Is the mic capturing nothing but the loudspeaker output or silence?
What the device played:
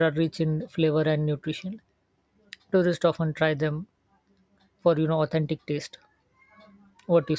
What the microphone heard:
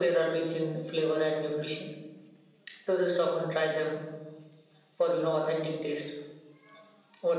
Yes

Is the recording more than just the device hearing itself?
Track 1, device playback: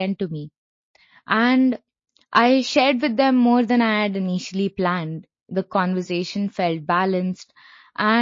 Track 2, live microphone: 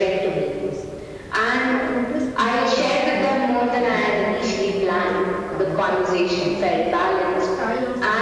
Yes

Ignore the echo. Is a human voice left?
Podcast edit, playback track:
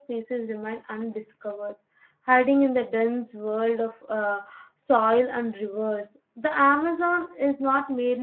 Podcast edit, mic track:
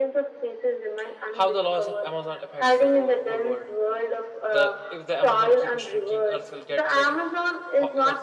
Yes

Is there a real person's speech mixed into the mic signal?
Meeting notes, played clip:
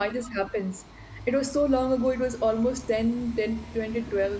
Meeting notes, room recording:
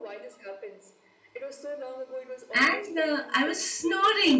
Yes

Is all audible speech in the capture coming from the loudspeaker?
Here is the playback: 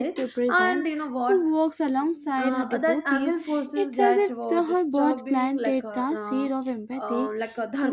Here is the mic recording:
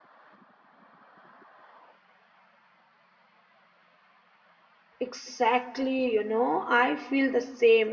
No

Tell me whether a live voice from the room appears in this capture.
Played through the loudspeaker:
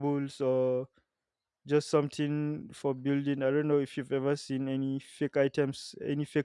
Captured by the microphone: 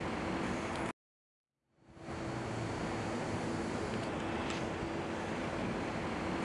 No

